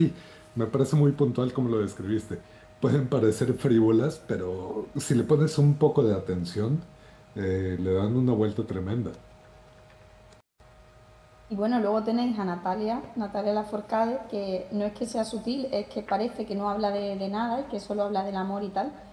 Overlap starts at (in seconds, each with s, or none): none